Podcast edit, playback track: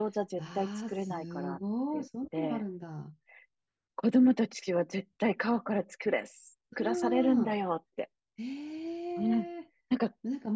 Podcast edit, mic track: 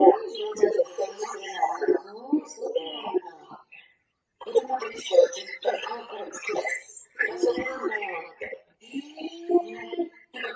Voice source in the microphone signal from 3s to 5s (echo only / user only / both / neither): echo only